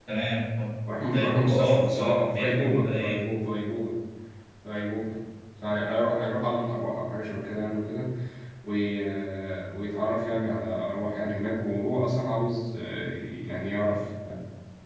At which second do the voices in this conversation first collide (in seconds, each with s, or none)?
1.1 s